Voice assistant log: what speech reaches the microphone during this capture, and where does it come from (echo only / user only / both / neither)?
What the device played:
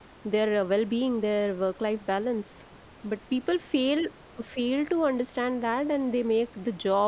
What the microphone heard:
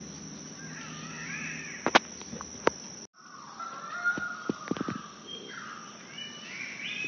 neither